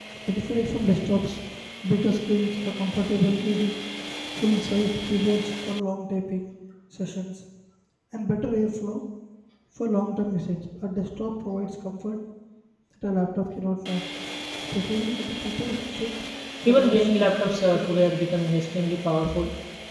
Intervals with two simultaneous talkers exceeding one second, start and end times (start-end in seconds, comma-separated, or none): 16.6-18.0